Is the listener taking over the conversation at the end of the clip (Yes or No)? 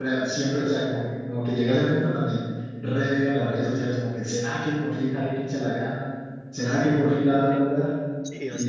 Yes